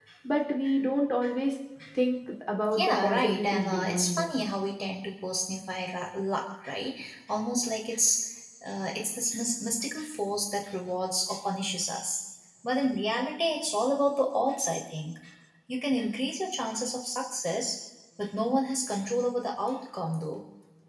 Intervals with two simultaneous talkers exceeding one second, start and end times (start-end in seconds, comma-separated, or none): 2.7-4.4